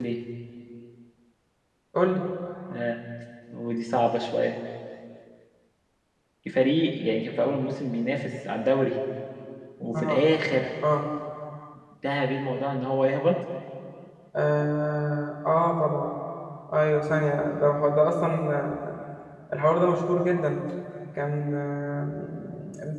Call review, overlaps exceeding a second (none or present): none